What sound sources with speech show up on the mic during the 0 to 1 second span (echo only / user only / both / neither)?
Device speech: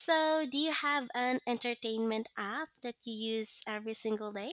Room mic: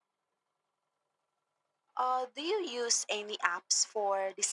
neither